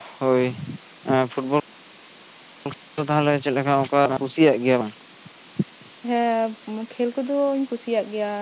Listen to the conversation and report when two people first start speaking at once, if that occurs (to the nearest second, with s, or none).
none